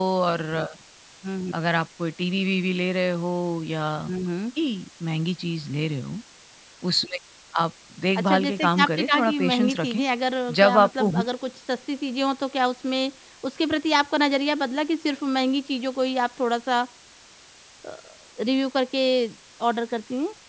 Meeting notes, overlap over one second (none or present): present